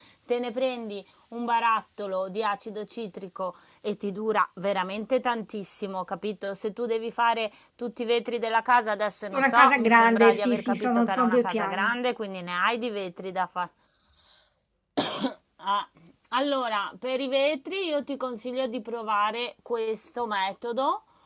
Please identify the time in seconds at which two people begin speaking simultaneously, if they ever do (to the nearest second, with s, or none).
9 s